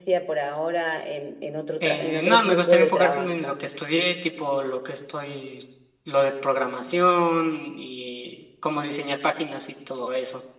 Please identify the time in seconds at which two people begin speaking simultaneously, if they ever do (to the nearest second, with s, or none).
2 s